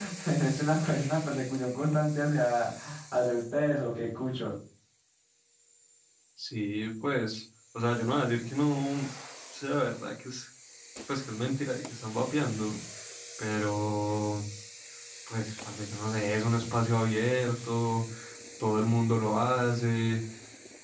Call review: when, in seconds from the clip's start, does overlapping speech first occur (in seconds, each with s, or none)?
none